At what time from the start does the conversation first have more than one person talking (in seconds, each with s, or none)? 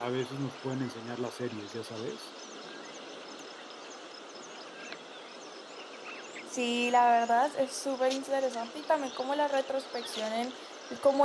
none